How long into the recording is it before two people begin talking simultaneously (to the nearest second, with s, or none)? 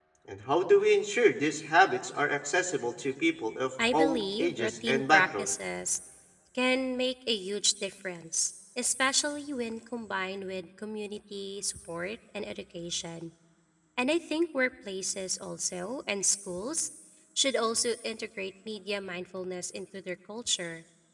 4 s